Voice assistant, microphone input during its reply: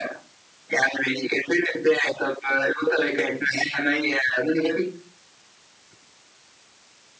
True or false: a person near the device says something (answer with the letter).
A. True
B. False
B